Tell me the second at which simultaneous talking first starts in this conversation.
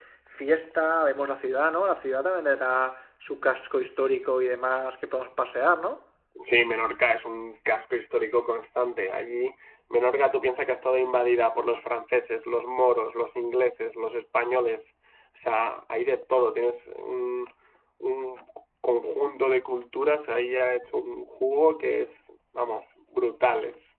none

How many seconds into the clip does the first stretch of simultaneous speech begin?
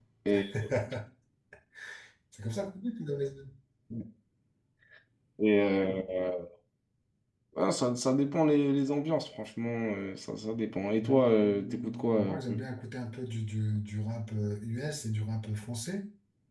11.0 s

